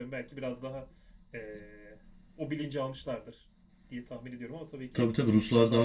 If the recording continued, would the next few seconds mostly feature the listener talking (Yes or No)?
Yes